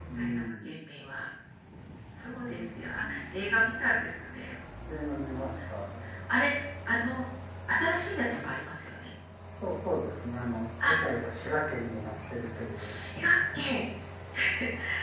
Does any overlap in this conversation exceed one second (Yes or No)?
Yes